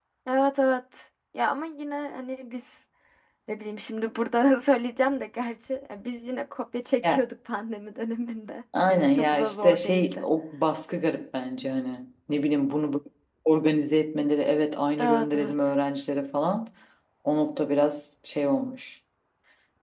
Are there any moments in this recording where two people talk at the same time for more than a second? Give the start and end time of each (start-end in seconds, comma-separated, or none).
8.9-10.2